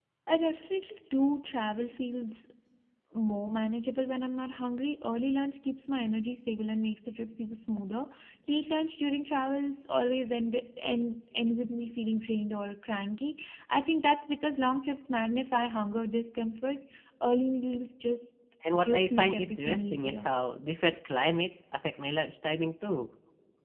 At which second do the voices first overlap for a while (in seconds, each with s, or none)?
18.6 s